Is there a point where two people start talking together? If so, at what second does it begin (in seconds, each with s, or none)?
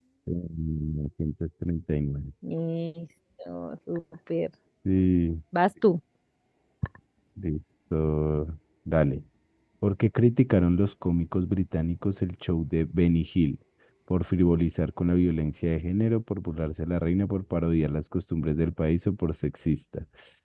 none